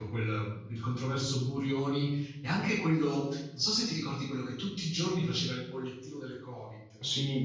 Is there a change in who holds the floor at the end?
Yes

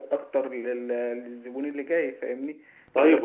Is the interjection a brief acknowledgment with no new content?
No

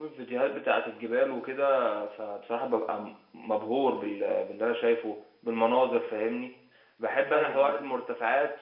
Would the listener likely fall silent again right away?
Yes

